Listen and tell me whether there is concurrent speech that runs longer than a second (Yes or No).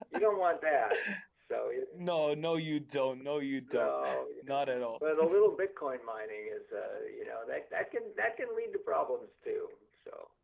No